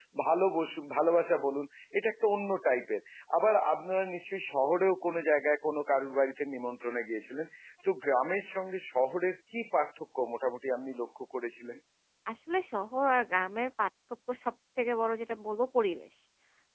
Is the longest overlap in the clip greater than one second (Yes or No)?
No